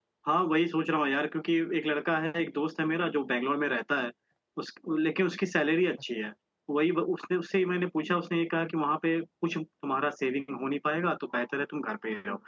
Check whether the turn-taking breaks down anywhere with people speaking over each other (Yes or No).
No